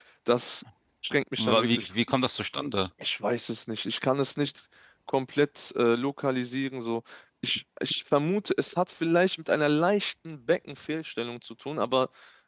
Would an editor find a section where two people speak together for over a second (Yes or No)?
No